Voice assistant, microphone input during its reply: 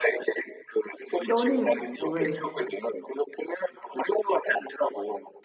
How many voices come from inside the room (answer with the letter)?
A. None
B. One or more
B